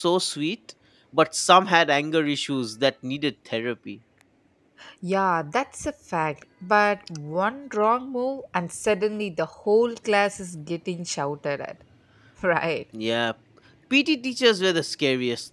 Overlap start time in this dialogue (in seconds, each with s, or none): none